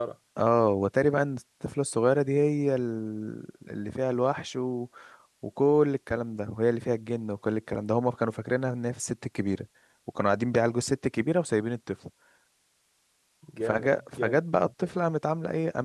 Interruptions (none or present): present